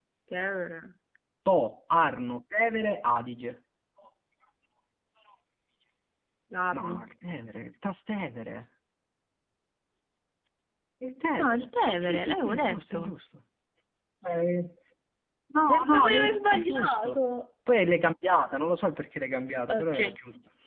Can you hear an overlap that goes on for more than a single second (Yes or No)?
Yes